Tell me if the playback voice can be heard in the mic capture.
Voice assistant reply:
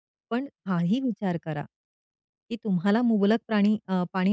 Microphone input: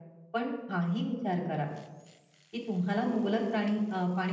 Yes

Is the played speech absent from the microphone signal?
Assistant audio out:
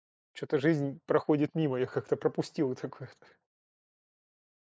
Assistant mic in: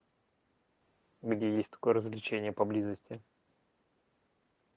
Yes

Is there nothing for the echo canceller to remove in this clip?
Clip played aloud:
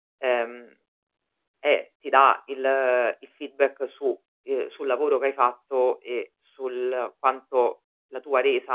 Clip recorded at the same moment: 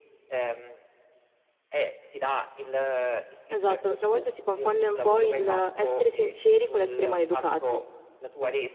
No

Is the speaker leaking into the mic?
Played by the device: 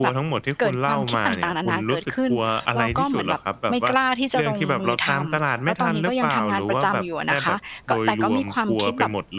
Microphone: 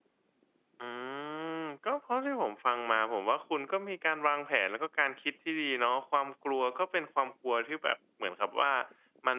No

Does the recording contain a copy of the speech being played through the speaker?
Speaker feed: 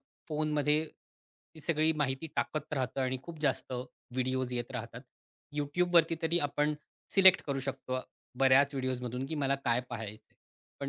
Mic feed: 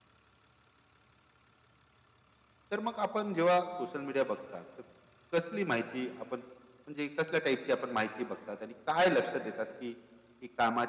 No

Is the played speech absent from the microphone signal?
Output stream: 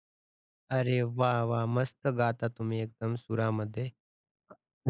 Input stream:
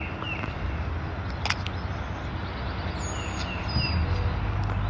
Yes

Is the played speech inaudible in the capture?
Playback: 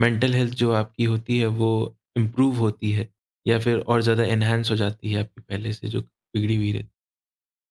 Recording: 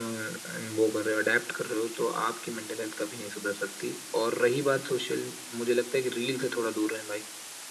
Yes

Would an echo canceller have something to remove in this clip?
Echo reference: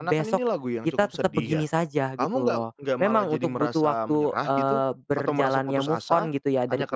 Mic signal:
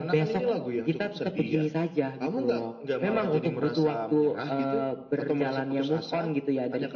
Yes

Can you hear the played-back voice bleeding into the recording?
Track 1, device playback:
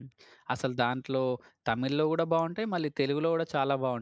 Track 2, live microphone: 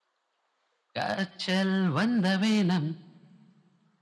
No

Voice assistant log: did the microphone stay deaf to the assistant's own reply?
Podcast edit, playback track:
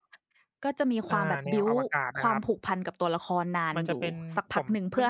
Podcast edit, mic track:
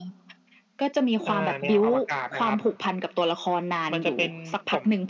No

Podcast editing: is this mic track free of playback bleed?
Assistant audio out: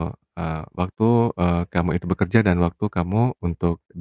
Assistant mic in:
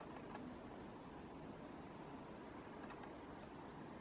Yes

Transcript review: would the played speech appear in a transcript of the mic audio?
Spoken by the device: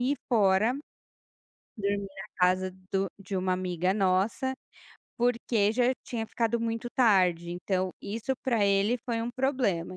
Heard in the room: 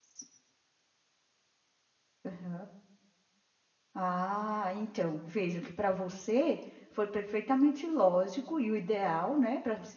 No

